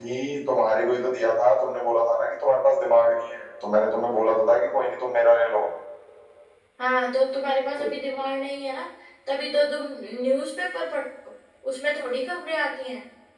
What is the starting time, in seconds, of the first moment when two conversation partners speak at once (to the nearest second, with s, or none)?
none